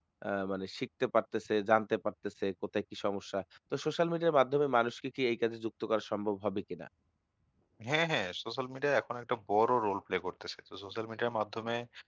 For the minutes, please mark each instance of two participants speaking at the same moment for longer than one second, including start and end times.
none

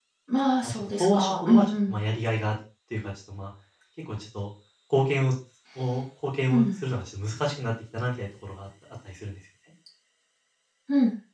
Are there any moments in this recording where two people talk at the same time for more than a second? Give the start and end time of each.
0.6-1.9

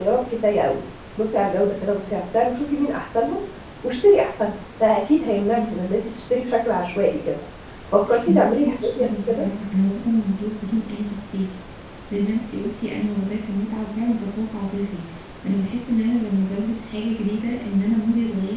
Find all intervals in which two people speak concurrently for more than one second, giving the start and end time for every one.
8.1-9.4

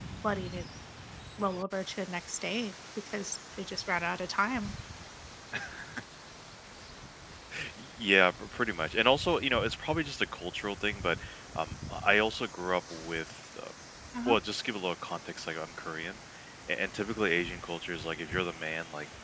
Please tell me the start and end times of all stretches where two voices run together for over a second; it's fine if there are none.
none

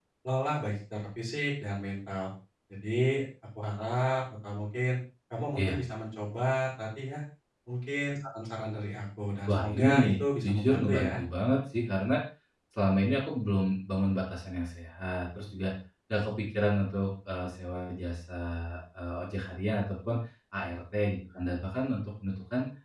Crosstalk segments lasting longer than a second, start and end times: 9.5-11.2

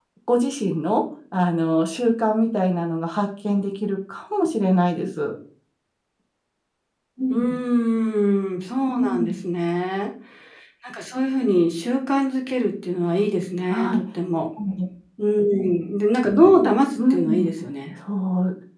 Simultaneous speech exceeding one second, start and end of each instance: none

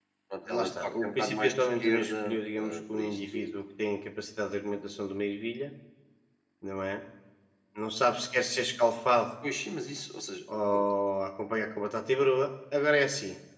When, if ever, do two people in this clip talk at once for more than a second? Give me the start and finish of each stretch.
0.5-3.6

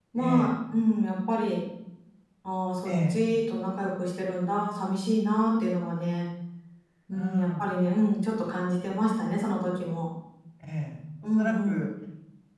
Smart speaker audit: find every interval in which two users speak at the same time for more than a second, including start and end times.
none

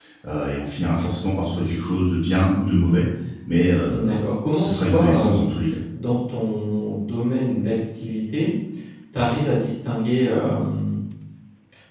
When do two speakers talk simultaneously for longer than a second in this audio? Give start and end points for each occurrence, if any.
3.9-5.5

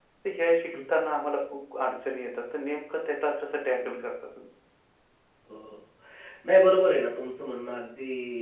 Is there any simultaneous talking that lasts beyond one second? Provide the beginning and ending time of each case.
none

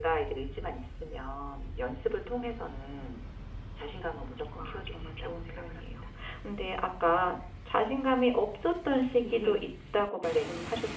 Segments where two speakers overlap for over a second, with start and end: 4.5-6.0

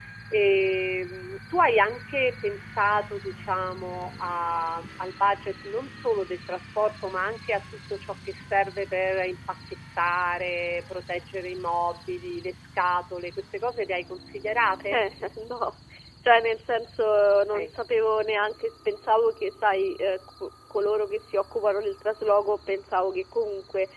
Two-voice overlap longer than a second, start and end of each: none

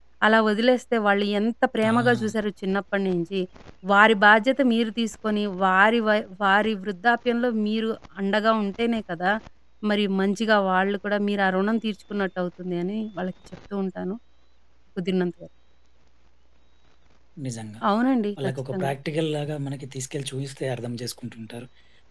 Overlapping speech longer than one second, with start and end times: none

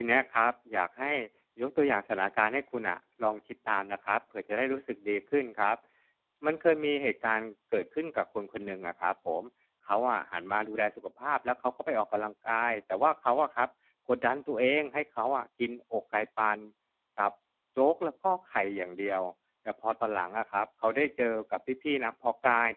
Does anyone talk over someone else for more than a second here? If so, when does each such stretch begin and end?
none

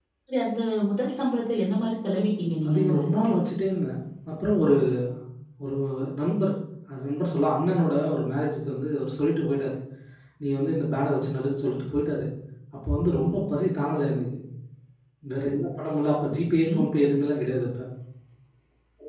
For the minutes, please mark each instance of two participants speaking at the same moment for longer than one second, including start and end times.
none

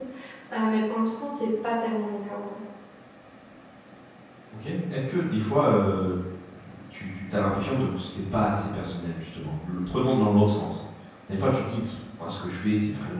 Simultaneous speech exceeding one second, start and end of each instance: none

